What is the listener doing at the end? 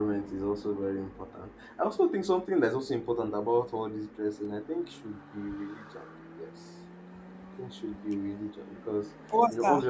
listening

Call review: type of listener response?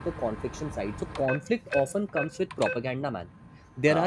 listening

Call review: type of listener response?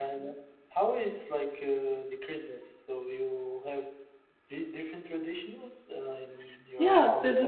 taking over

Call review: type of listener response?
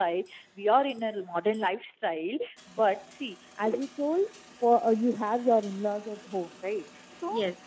listening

